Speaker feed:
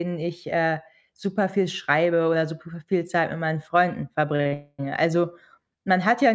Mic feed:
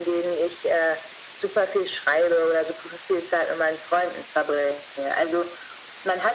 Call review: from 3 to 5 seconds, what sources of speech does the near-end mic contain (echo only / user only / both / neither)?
echo only